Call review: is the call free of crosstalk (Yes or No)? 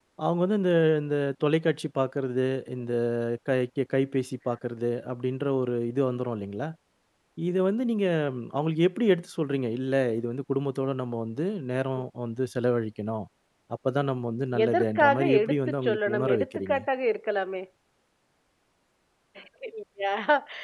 No